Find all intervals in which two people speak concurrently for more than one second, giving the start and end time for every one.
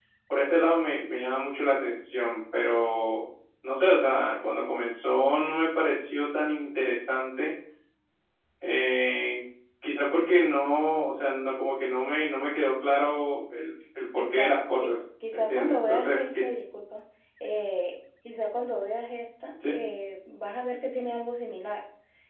15.3-16.5

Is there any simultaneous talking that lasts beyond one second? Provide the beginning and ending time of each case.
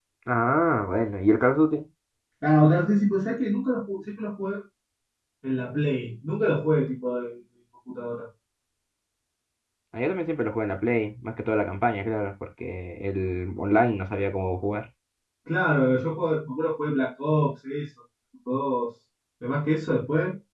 none

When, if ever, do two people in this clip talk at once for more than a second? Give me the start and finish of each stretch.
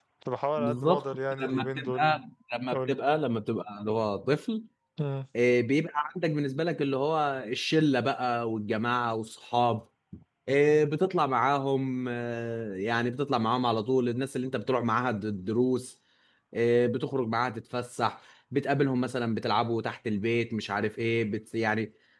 0.6-2.2

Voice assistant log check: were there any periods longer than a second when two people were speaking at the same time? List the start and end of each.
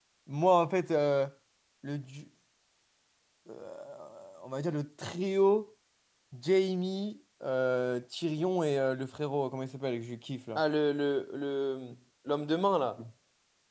none

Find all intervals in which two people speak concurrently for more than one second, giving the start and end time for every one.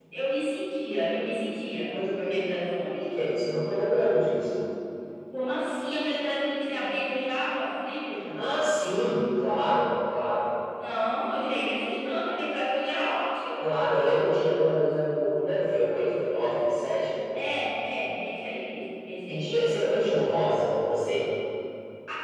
none

